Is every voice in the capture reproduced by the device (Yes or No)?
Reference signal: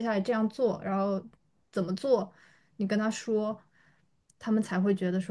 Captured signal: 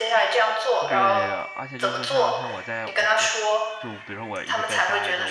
No